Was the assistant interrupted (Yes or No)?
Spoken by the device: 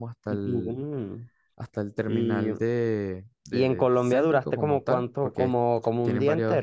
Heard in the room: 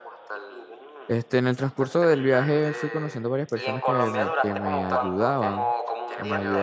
Yes